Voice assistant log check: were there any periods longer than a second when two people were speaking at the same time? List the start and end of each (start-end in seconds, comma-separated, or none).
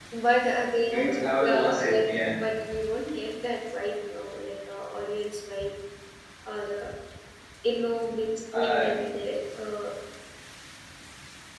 0.9-2.3